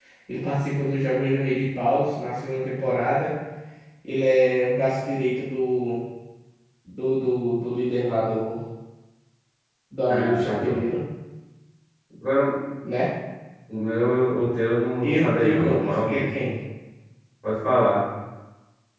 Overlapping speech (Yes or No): Yes